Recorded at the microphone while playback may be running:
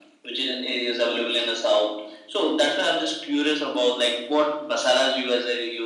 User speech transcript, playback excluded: none

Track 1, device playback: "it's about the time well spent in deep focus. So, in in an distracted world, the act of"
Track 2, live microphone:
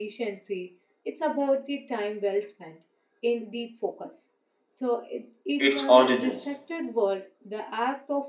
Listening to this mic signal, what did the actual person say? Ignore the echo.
its origins.

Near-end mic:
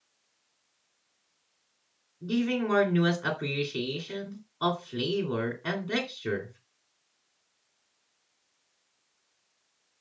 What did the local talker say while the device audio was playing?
giving more nuanced appreciation of flavor and texture.

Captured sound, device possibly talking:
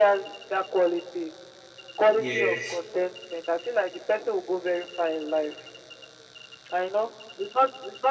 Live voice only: yeah

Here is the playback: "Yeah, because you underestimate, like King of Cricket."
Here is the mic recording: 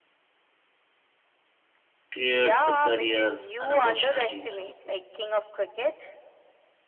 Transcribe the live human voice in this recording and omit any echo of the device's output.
creates the career and opportunities.

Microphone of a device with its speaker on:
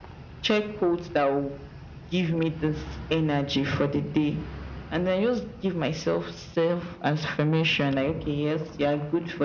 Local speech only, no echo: none

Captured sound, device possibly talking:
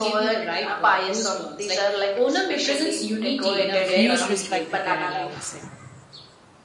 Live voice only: huge respect to kerala i would say

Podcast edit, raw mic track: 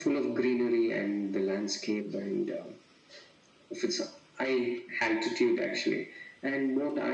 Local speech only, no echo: none

